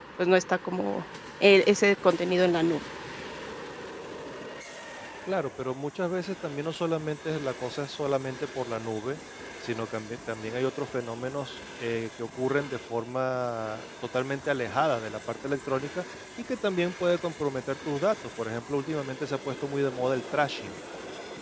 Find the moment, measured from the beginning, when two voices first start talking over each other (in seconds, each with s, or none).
none